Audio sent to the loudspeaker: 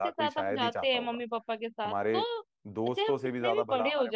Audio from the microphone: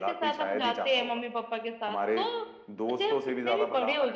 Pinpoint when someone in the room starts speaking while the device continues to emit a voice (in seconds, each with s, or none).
none